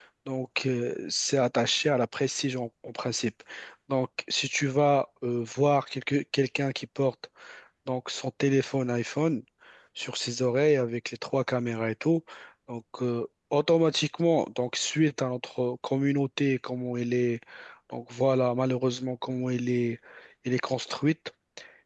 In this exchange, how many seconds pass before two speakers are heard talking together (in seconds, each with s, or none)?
none